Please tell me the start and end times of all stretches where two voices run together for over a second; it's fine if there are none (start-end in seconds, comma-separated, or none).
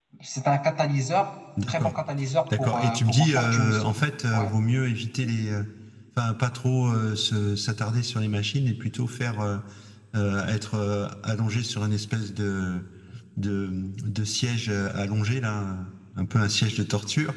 2.6-3.9